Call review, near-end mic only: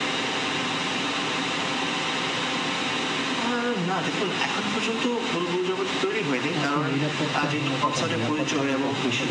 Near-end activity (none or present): present